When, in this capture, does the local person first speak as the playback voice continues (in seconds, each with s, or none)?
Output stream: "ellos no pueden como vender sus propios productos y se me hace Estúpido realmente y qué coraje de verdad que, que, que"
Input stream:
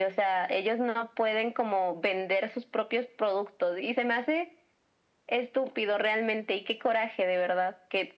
none